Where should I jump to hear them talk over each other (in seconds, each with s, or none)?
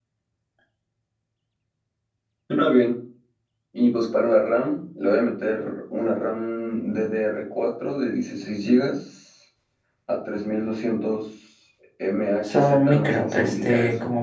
12.4 s